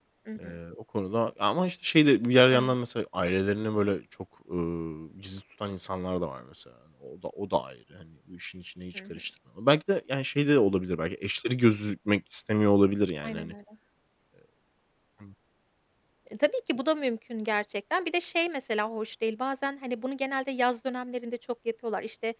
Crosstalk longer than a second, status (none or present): none